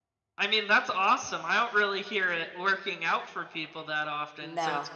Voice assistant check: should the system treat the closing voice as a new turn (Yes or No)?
No